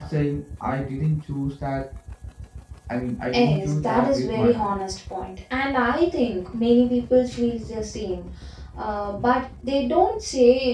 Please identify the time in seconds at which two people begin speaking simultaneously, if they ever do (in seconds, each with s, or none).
3.3 s